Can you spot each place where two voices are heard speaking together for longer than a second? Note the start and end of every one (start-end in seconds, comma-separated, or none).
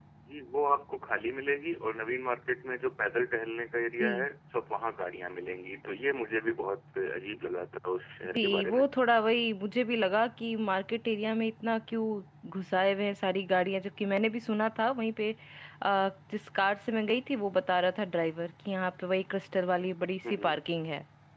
none